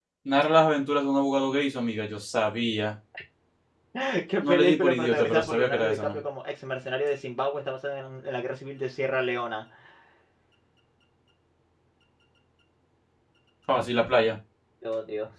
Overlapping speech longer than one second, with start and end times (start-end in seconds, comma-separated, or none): 4.5-6.2